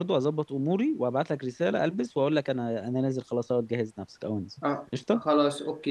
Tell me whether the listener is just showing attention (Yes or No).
No